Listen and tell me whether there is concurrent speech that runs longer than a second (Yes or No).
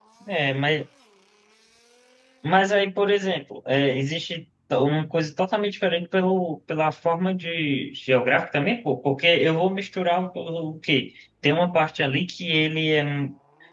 No